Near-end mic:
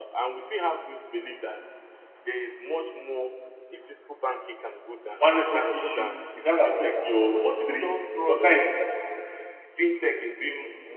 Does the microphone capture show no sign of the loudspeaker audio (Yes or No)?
No